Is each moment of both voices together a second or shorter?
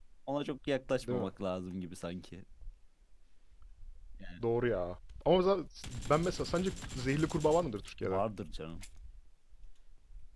Yes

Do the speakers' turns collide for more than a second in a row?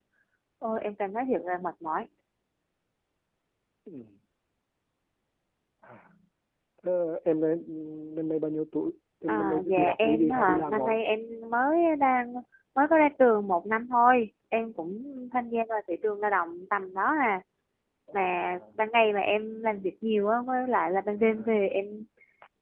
Yes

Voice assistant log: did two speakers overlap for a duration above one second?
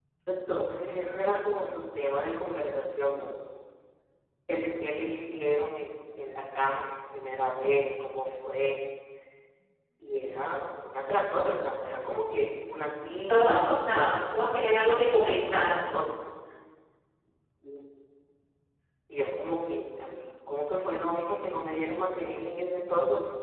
Yes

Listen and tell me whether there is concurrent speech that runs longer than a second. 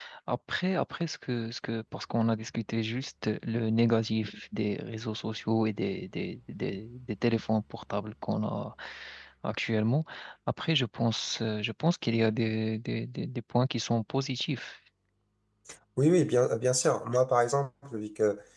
No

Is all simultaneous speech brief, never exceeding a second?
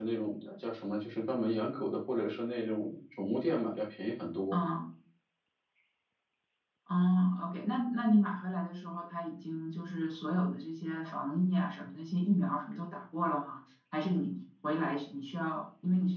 Yes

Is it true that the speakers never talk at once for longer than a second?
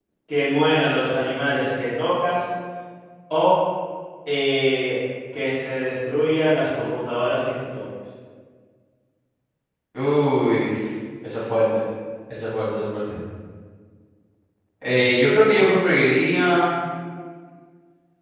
Yes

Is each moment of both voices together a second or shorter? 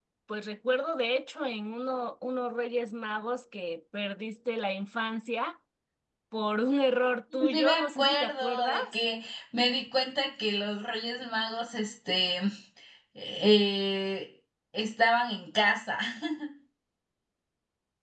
No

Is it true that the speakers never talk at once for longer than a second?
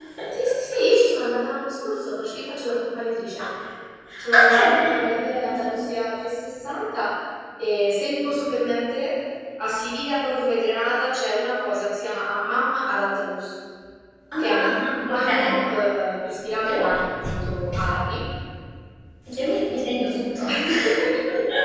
No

